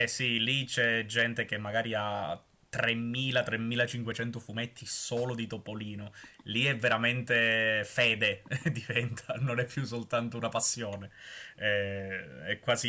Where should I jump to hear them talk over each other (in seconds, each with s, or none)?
none